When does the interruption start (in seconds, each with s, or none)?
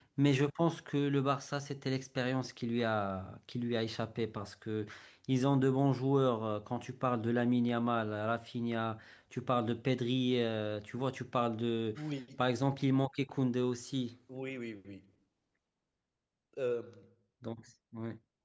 none